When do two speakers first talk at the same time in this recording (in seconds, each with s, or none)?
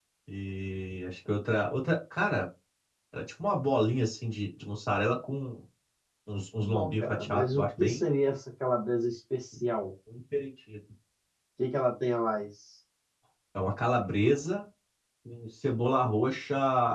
6.6 s